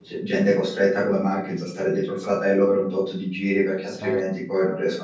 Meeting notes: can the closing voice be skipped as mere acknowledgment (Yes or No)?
Yes